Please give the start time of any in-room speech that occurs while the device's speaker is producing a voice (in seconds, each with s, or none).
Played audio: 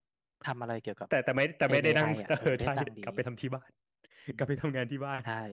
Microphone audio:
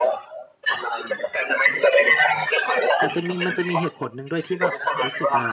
3.0 s